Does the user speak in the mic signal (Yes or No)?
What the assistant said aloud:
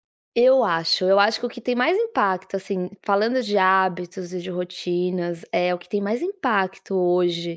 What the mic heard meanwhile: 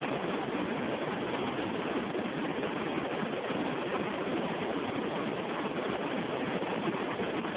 No